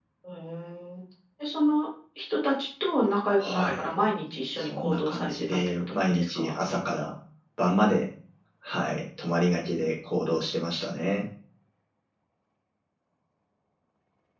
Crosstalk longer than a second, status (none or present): present